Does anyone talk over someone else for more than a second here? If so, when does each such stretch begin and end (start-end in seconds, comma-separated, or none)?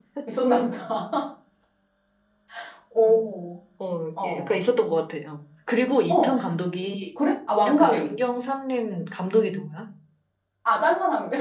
none